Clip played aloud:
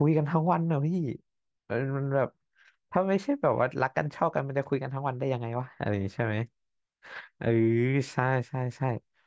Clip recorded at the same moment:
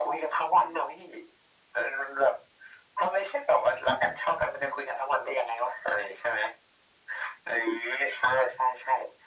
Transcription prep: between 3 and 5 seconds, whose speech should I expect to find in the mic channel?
echo only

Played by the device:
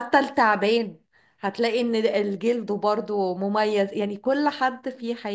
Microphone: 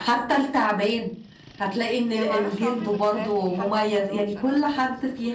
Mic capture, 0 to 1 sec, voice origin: echo only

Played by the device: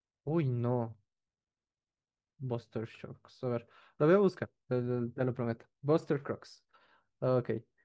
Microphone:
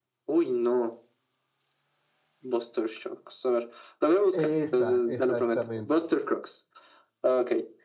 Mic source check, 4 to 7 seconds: both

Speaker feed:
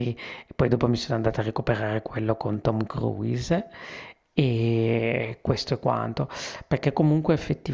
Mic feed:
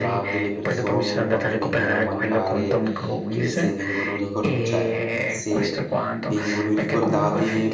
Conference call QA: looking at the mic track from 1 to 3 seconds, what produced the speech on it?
both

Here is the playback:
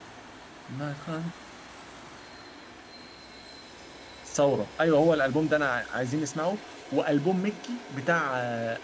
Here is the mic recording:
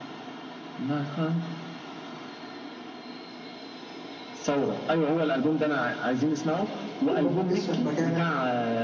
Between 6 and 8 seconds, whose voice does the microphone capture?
both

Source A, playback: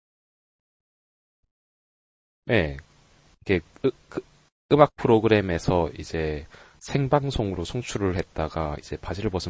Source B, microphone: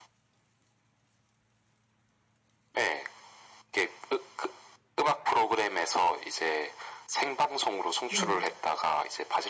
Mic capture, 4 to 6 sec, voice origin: echo only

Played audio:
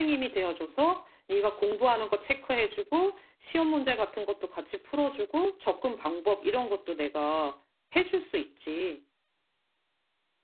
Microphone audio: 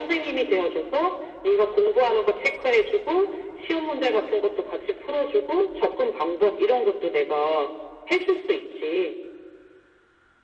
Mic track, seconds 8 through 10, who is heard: echo only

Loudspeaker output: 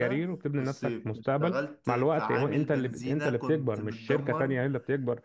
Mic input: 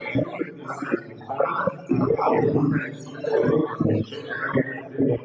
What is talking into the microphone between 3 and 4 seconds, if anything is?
echo only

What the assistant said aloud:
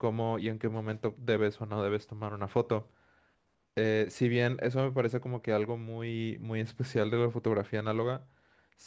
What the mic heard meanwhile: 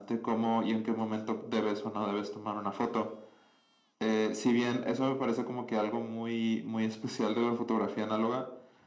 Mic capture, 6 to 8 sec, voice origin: echo only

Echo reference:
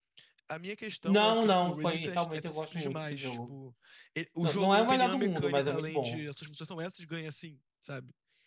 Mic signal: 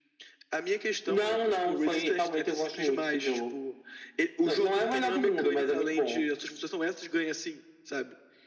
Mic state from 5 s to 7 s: echo only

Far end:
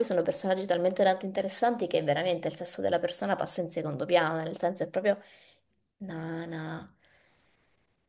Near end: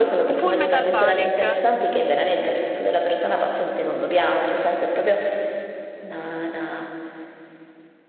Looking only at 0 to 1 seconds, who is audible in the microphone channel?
both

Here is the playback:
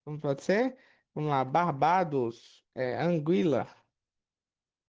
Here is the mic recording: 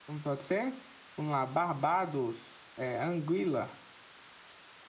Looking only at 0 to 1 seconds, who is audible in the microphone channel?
echo only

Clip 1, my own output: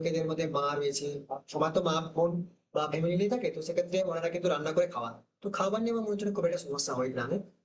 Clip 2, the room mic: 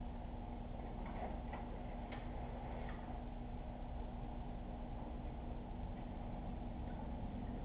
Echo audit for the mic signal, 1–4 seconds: neither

